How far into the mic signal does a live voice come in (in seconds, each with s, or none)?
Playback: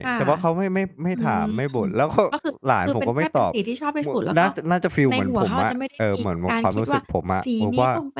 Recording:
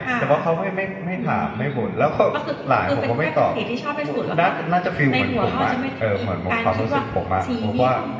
none